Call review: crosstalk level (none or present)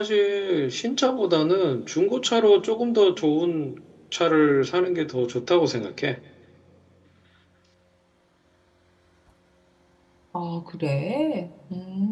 none